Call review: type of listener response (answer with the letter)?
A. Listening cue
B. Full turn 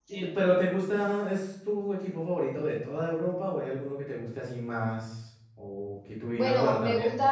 B